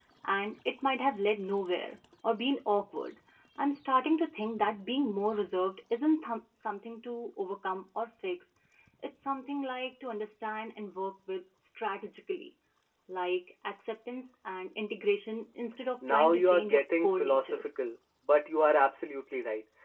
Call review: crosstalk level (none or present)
present